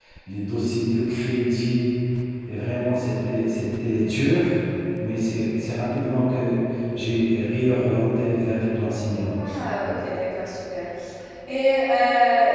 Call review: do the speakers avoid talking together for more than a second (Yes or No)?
Yes